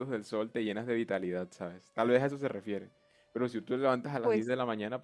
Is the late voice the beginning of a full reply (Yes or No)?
No